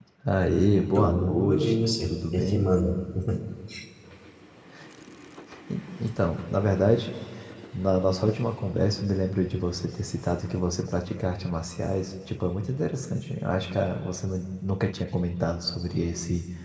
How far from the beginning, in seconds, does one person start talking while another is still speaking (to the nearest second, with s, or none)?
1 s